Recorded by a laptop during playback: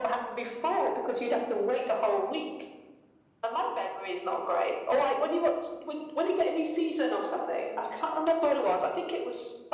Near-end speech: none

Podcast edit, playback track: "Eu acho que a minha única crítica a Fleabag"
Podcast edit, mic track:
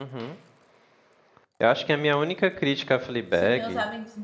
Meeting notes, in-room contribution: present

